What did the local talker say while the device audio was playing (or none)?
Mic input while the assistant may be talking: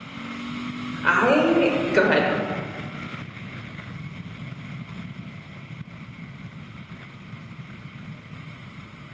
I go ahead.